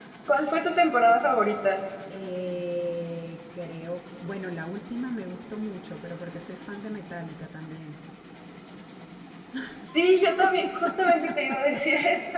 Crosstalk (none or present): none